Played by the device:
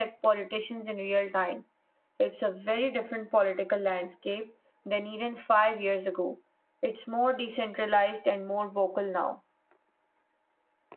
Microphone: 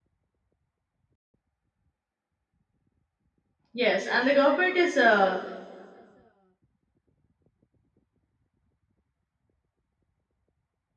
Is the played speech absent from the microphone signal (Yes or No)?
Yes